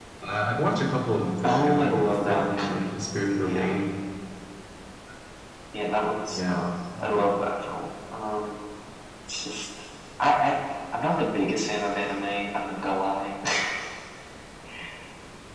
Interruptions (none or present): present